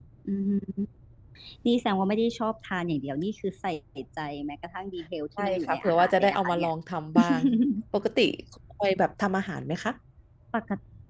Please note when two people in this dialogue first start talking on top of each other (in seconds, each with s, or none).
5.4 s